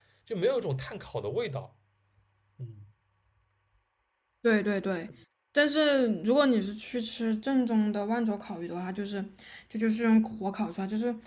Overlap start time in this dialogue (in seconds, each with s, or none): none